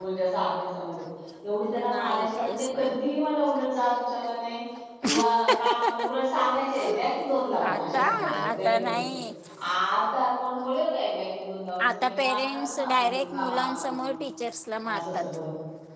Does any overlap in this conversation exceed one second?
Yes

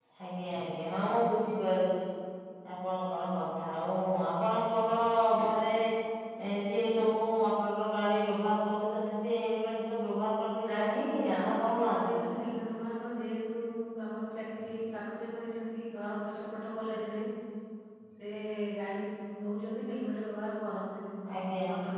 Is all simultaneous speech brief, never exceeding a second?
No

